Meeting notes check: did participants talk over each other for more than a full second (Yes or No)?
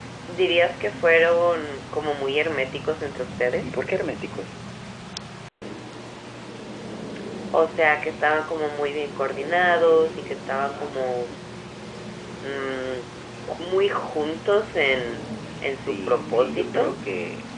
Yes